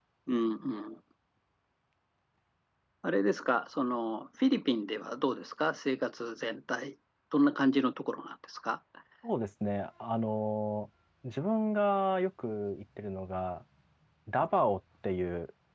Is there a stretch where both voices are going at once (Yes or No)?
No